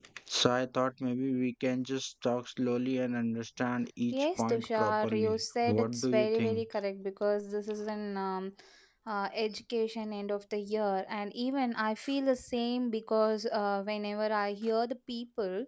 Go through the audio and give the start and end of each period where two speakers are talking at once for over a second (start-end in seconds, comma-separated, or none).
4.1-6.6